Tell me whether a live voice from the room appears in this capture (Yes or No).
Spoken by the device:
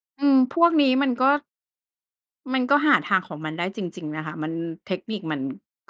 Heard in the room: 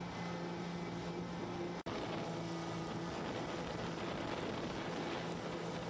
No